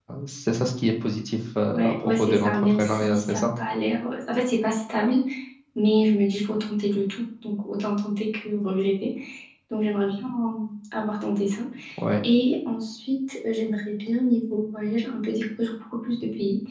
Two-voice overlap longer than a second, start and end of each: 1.7-3.4

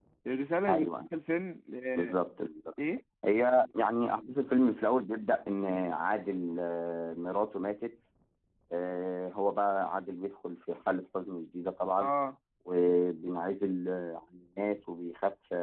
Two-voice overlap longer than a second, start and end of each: none

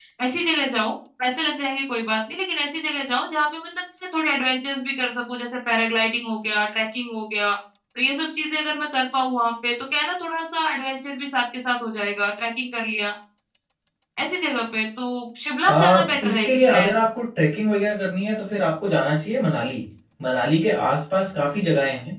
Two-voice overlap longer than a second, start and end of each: 15.6-16.9

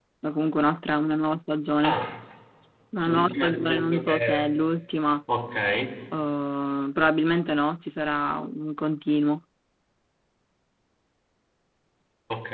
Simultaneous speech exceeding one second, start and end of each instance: 3.1-4.5

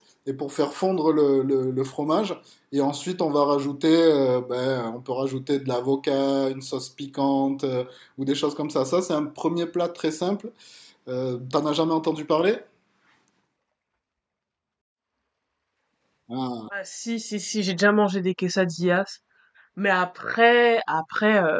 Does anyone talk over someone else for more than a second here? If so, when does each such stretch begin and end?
none

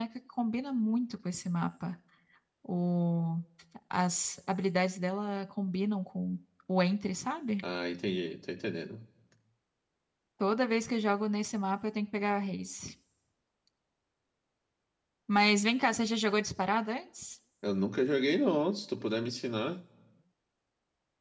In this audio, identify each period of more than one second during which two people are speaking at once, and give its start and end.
none

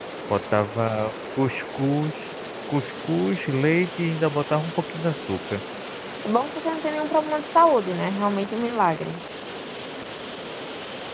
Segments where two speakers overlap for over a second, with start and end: none

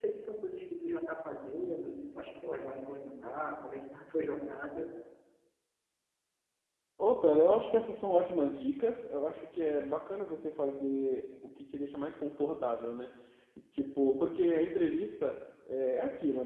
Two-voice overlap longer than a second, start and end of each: none

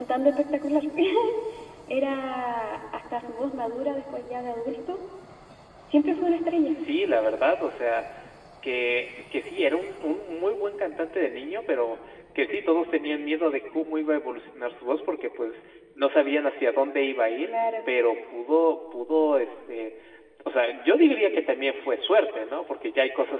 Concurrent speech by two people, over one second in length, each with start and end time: none

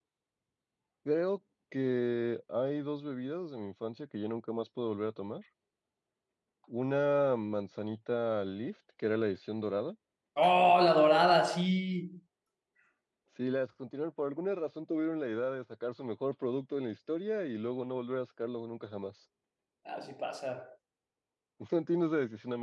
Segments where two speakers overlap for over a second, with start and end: none

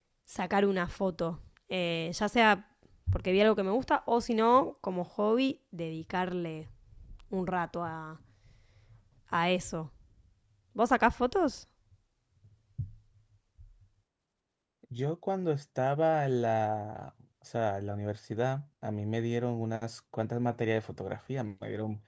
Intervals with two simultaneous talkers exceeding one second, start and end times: none

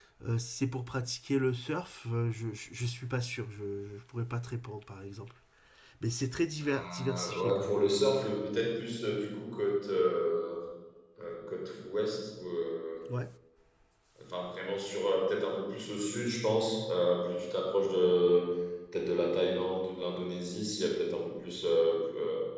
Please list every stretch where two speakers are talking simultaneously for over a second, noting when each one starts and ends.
6.6-7.8

